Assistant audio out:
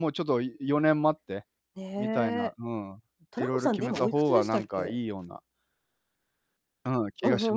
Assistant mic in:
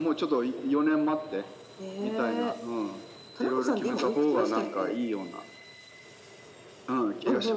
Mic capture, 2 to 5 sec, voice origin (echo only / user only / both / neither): echo only